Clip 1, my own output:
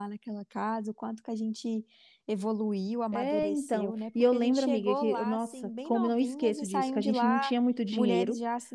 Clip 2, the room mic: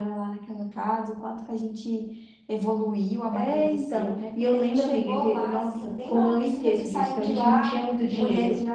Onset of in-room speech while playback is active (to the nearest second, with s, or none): none